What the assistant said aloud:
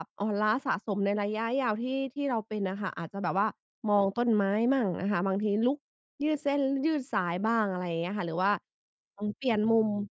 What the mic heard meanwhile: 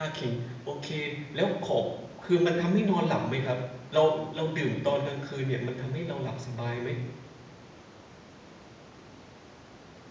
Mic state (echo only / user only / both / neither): user only